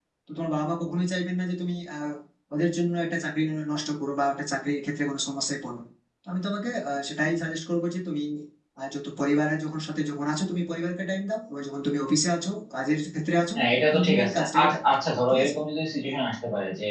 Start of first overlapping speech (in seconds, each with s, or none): 13.6 s